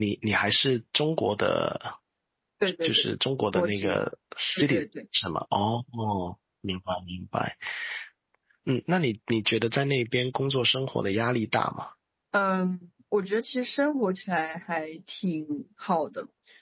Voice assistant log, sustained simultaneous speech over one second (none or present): none